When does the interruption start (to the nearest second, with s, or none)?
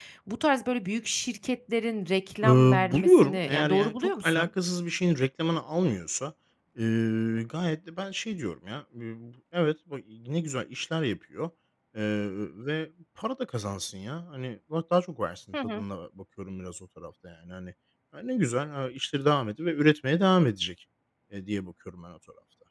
2 s